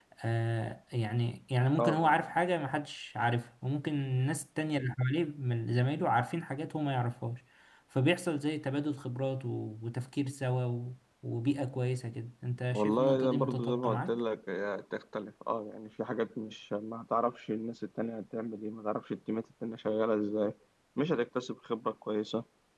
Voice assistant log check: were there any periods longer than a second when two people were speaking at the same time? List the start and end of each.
12.7-14.2

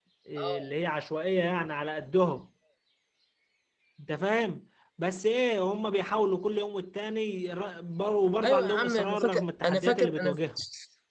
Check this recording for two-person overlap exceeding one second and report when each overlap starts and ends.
8.4-10.4

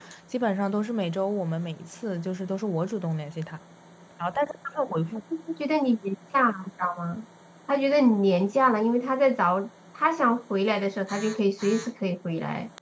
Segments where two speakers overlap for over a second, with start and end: none

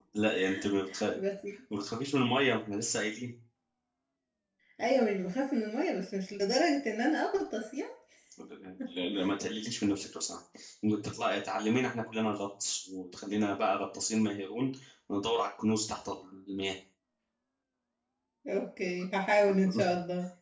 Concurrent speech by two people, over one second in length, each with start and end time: none

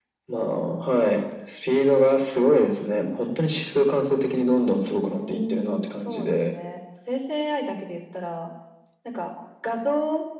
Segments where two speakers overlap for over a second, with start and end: 5.2-6.5

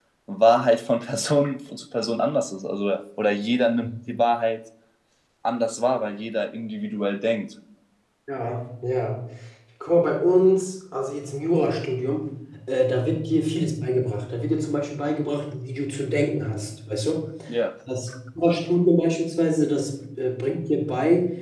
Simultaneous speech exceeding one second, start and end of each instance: none

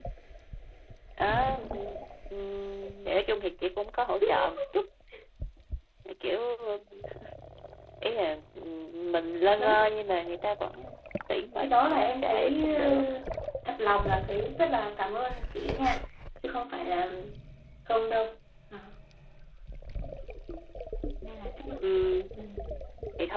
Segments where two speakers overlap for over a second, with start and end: 11.6-12.8

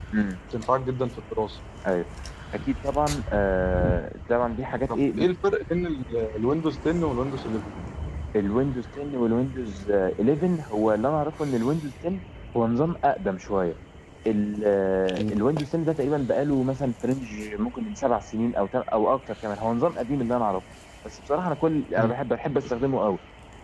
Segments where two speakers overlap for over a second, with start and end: none

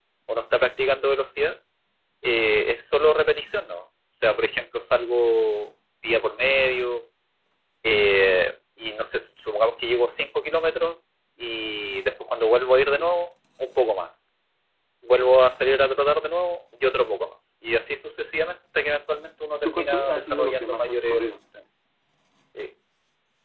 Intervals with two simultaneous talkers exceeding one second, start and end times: 19.6-21.4

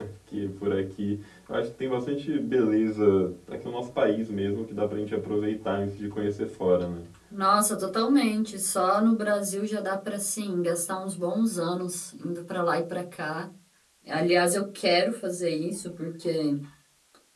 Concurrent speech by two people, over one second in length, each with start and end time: none

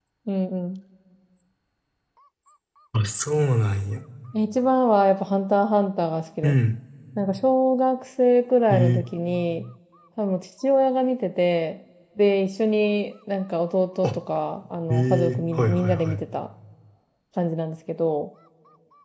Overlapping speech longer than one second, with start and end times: 14.9-16.2

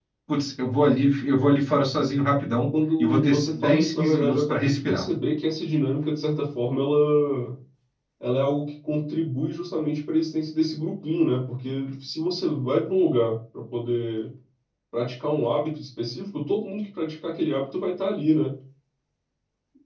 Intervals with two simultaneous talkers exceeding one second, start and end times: 3.0-5.0

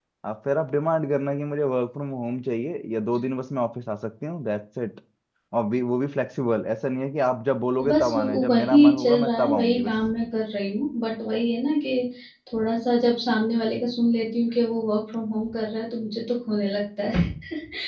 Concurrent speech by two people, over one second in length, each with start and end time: 7.9-9.9

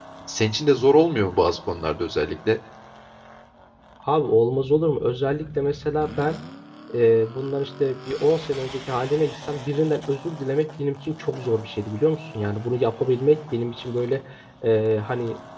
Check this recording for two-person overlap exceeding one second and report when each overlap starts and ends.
none

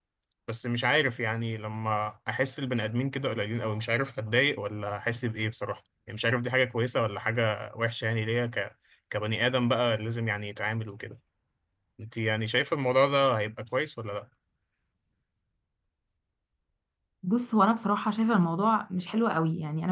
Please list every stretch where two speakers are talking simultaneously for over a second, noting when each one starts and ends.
none

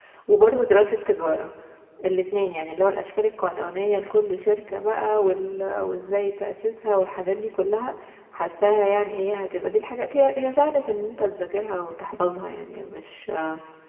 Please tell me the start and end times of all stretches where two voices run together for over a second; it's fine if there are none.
none

